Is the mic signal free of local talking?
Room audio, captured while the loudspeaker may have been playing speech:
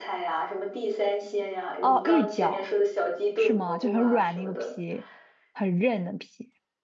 No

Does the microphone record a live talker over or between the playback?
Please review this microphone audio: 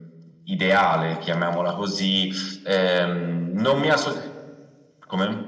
No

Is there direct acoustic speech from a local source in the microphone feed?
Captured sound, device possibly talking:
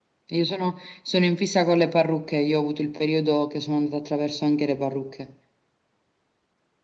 No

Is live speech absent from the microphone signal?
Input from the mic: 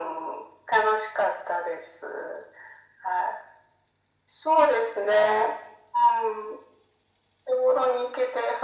Yes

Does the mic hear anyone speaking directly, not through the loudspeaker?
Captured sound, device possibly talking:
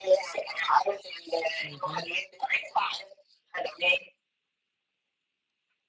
Yes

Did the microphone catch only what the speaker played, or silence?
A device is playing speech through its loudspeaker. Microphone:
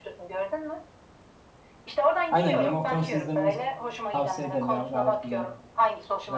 No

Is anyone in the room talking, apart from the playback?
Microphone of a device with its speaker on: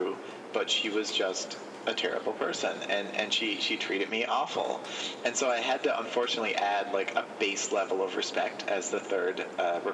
No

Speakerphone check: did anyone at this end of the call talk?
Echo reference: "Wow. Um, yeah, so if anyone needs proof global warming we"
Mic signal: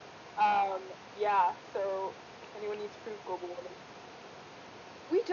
No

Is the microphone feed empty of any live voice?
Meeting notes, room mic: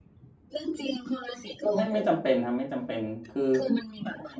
No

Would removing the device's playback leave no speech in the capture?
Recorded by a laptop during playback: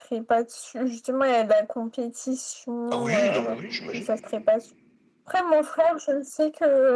No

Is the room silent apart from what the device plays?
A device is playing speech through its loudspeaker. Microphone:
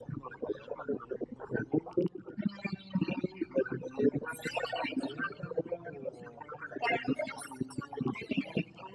No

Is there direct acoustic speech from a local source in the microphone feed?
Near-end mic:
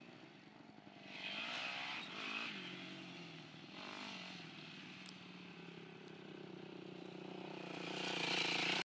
No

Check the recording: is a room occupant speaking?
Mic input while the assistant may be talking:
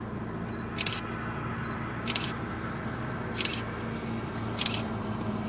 No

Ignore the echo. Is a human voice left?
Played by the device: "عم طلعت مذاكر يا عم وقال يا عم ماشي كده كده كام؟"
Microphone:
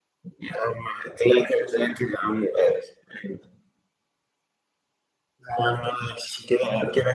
No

